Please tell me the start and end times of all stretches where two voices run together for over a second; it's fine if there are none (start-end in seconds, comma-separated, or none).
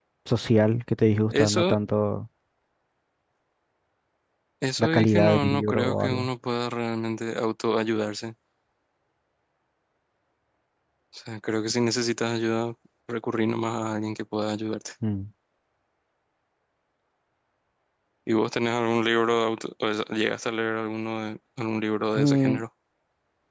4.8-6.3